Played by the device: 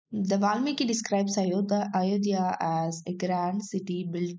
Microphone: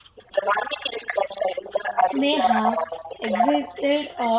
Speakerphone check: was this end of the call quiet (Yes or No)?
No